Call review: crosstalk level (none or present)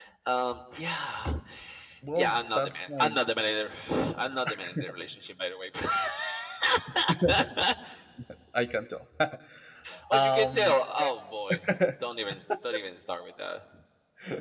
present